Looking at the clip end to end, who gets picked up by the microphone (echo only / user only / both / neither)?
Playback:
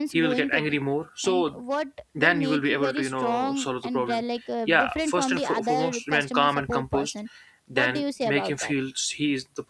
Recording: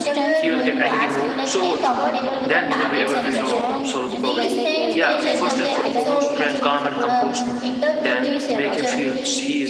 both